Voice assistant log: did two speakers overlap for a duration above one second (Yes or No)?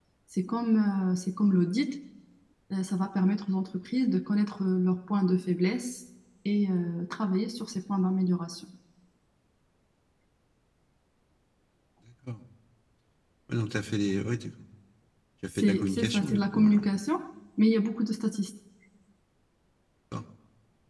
Yes